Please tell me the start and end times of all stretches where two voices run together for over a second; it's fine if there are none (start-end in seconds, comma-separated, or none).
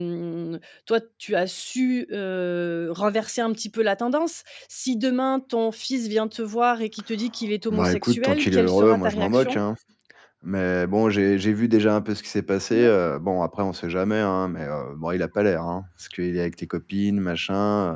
7.7-9.6